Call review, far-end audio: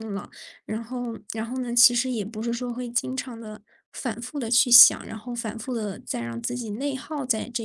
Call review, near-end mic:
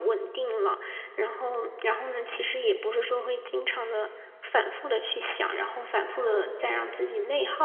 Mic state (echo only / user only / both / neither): echo only